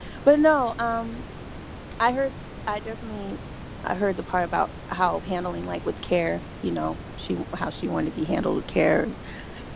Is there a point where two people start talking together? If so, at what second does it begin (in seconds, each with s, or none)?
none